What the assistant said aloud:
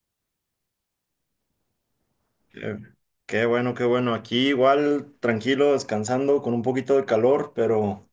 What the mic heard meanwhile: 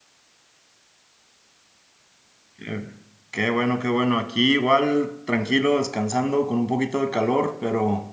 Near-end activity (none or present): none